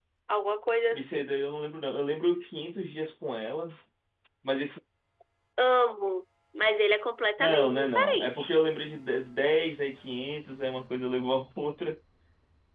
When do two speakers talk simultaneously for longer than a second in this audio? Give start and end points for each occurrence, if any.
7.4-8.6

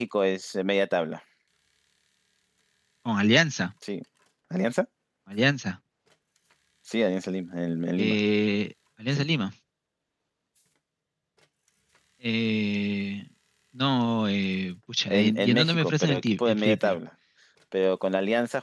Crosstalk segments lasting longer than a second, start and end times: 15.1-17.0

